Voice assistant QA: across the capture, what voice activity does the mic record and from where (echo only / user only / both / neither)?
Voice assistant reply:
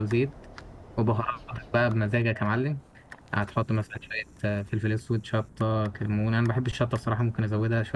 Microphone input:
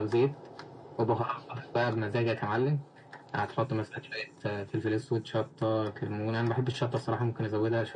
echo only